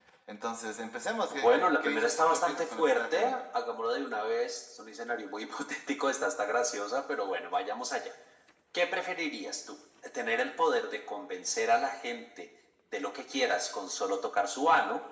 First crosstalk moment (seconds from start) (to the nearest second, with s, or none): 1 s